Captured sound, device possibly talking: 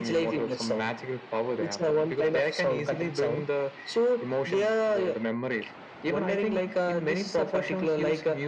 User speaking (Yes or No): No